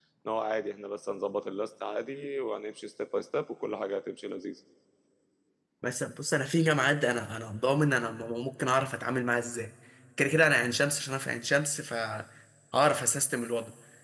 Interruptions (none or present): none